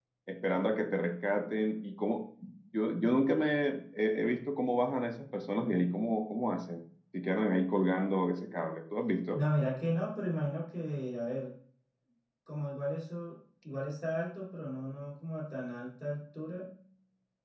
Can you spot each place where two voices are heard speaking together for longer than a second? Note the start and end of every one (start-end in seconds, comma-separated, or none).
none